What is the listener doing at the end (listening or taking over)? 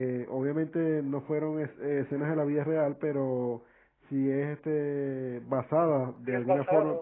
listening